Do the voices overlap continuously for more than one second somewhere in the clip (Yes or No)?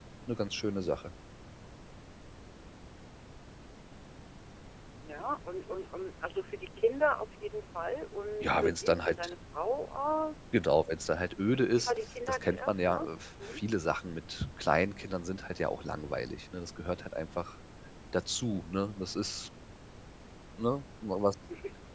Yes